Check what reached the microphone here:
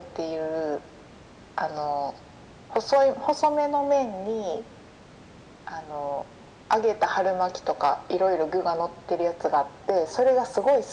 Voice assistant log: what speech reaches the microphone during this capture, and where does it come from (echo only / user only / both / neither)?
echo only